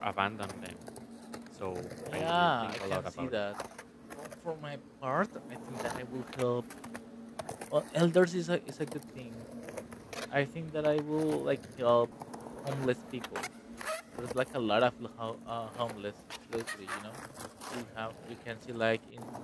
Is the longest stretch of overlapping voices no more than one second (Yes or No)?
No